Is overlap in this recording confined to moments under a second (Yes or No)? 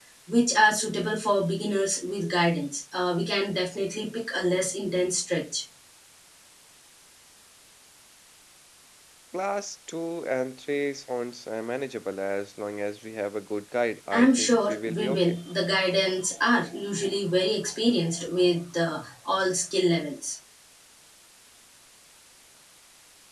No